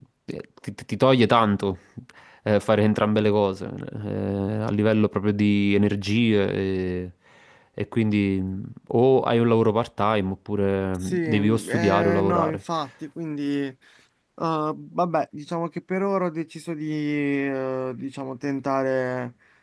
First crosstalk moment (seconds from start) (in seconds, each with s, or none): 10.9 s